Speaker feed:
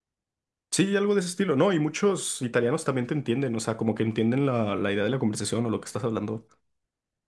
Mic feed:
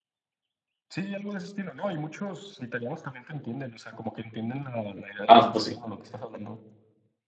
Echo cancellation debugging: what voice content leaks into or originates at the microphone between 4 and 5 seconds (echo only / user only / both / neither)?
echo only